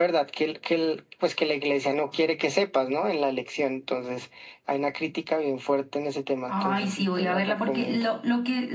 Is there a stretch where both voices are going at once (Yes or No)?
Yes